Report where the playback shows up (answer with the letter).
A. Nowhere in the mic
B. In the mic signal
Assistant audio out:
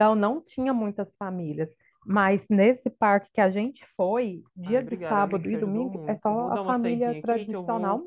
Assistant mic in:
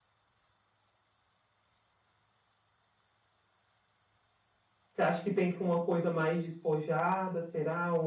A